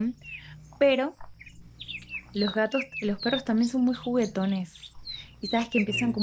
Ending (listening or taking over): listening